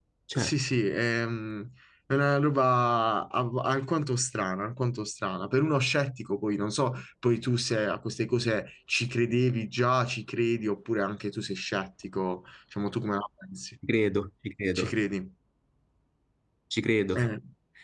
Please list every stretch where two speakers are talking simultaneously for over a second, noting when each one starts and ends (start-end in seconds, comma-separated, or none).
none